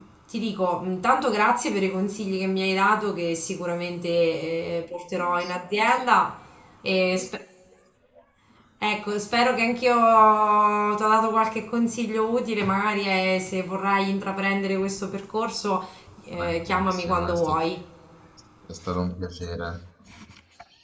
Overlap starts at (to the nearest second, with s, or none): 16 s